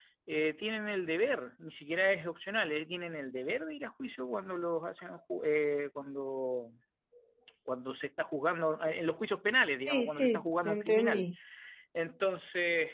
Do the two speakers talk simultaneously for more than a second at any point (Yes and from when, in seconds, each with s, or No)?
Yes, from 9.9 s